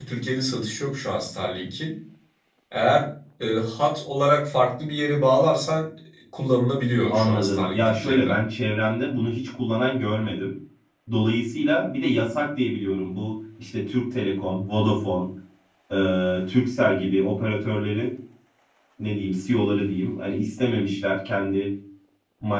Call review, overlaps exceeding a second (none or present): present